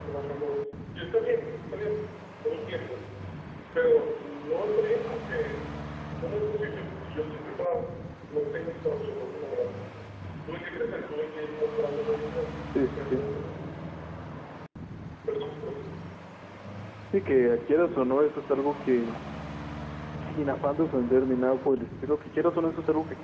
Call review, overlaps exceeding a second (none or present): none